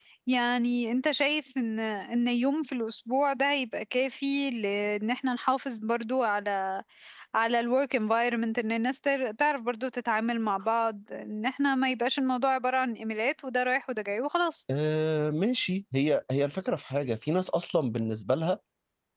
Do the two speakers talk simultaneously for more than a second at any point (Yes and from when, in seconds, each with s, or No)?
No